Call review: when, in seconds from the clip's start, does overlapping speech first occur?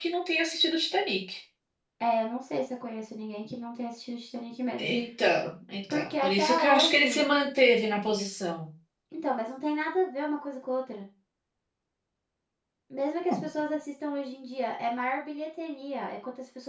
6 s

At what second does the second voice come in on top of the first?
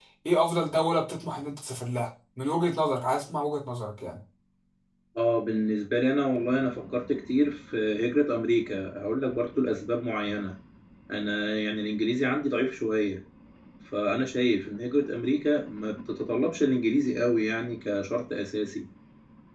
none

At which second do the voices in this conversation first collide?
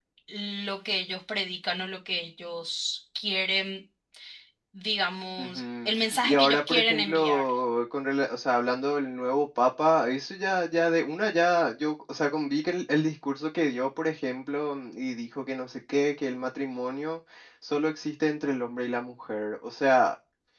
5 s

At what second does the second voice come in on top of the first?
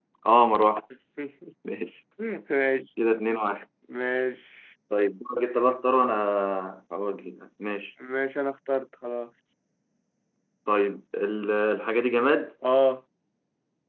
none

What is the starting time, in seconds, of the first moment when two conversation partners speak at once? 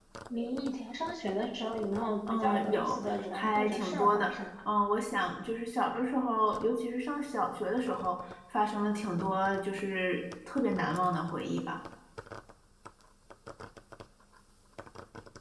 2 s

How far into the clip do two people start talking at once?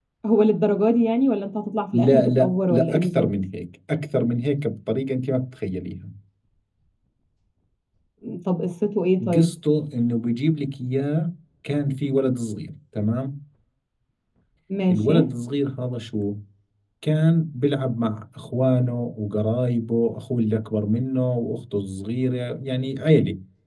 2 s

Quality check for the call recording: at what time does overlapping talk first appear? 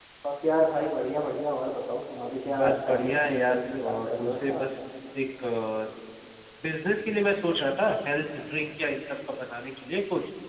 2 s

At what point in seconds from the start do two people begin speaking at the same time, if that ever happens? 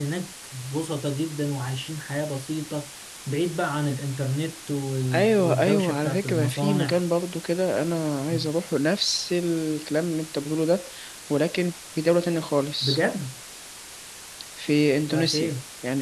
5 s

